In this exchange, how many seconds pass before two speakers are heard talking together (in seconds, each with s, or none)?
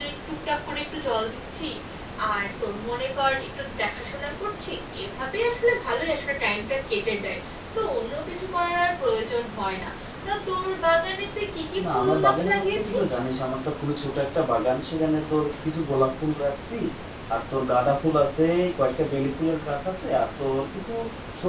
11.8 s